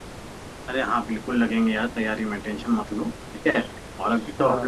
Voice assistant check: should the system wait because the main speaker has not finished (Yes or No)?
Yes